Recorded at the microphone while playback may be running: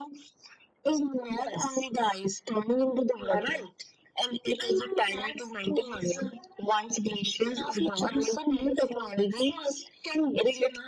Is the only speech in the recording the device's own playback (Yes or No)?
Yes